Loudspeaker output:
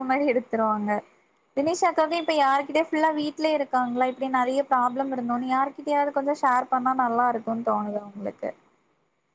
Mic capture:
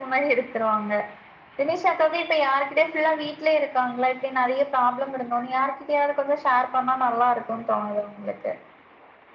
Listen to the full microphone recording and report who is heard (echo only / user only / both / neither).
echo only